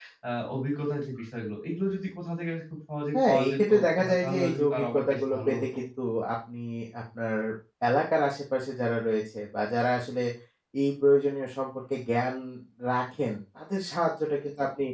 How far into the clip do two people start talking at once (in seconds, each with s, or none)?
3.1 s